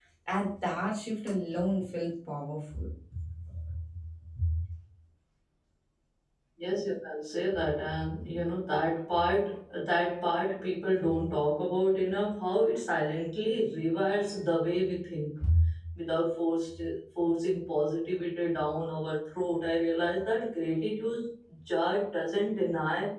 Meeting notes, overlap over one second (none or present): none